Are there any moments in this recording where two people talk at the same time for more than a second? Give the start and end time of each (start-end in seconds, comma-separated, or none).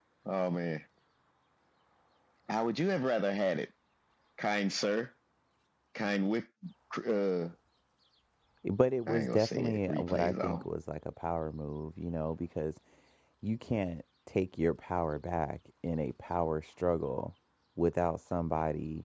9.1-10.6